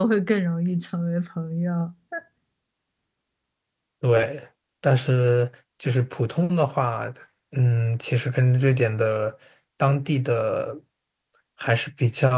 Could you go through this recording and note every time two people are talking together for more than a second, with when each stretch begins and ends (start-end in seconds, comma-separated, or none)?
none